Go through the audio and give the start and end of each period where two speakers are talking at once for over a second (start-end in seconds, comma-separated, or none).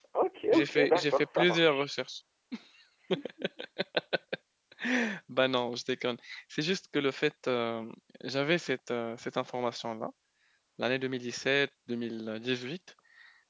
0.5-1.9